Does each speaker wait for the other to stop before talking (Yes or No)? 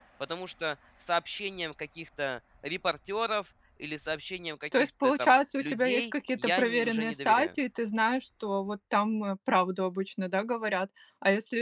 No